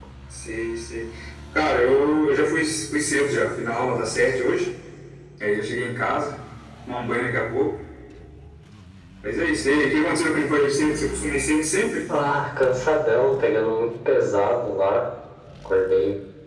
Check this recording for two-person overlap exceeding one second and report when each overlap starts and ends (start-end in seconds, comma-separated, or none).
none